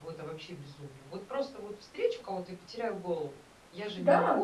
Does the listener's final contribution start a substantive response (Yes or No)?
Yes